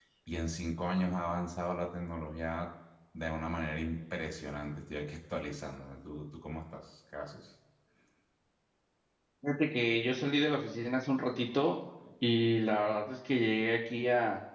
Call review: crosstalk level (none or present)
none